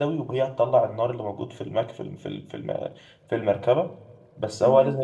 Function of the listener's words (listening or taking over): listening